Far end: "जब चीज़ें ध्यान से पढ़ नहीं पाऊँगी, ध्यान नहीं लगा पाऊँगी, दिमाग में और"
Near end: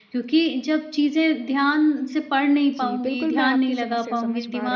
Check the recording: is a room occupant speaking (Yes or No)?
Yes